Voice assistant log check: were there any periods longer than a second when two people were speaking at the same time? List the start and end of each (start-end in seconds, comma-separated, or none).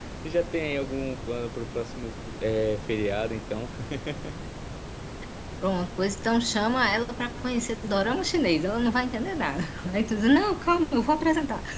none